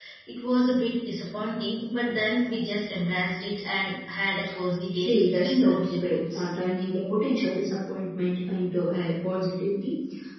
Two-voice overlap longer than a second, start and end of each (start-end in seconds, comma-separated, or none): 5.0-6.5